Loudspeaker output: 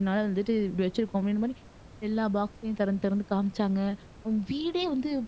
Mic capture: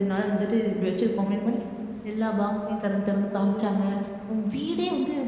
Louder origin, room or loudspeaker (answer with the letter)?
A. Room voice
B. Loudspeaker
B